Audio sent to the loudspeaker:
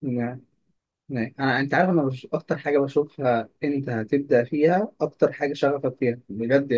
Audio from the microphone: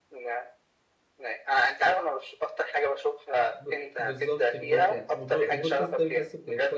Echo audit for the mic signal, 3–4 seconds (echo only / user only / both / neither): both